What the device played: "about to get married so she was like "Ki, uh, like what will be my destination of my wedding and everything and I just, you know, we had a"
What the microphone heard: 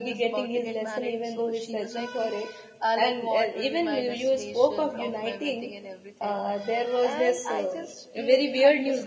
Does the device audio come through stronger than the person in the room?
No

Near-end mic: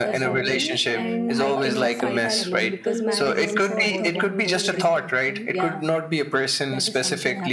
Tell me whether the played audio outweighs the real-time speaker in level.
Yes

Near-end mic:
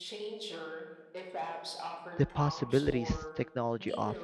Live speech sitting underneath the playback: No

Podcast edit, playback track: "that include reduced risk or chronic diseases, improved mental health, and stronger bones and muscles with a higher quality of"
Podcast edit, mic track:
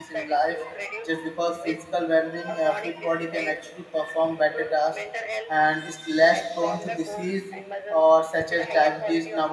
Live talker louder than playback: Yes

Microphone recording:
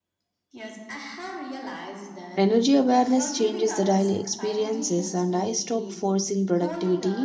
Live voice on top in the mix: Yes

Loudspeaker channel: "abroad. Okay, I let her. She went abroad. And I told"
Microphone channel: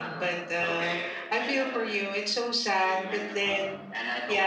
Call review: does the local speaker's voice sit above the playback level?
Yes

